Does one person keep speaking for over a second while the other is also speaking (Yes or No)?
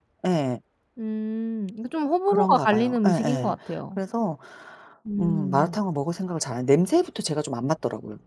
Yes